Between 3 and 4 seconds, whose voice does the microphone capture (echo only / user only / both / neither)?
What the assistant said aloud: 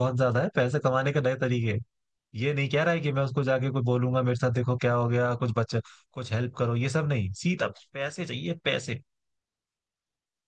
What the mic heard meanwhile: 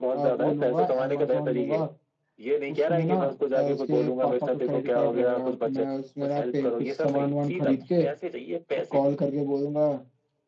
both